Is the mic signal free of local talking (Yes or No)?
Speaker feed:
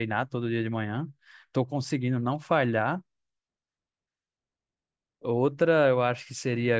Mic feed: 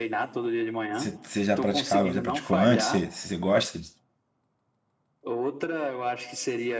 No